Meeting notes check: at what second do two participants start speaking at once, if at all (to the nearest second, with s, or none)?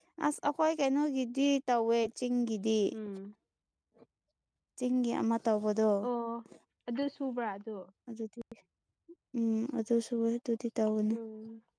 none